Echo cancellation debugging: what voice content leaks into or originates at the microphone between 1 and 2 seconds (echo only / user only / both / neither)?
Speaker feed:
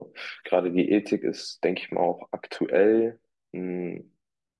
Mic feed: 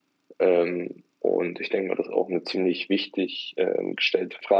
user only